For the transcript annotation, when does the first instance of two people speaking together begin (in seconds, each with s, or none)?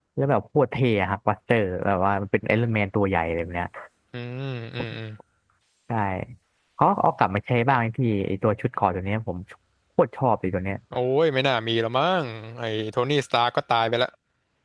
none